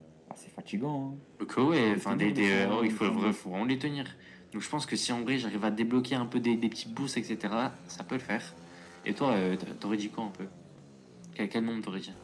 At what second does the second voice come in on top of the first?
1.9 s

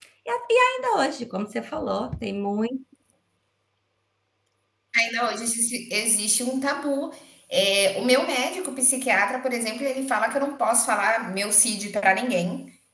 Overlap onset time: none

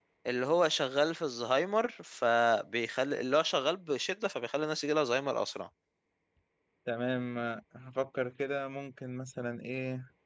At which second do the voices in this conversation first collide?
none

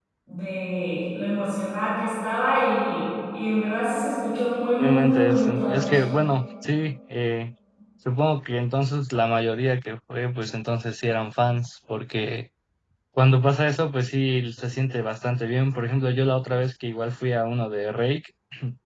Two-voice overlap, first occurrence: 4.8 s

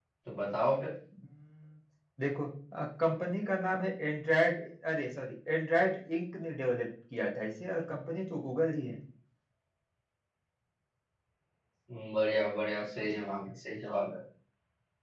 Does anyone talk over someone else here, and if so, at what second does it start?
none

